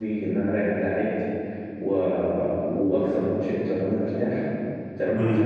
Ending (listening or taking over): listening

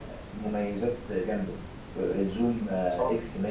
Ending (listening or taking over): listening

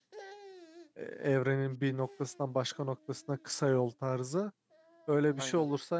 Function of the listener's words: listening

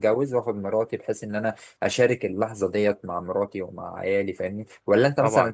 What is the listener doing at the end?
listening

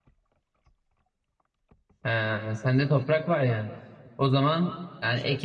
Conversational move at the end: listening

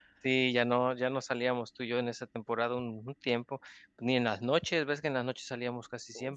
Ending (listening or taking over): taking over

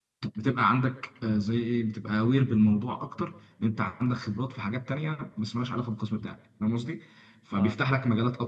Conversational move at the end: listening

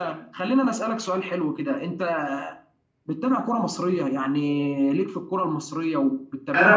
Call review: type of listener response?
taking over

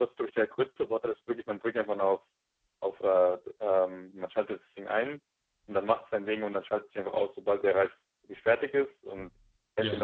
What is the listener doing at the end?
taking over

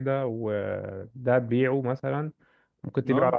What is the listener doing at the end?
listening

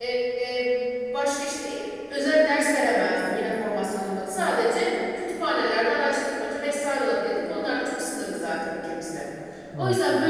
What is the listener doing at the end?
listening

